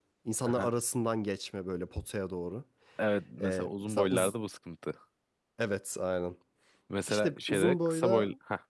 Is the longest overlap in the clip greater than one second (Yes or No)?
Yes